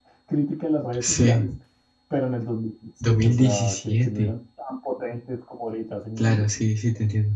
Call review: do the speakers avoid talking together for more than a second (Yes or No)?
No